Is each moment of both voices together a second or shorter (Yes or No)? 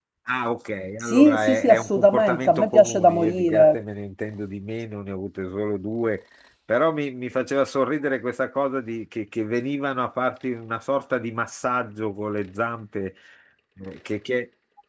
No